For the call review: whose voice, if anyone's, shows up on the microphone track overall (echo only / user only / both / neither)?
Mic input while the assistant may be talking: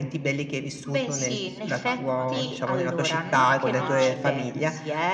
both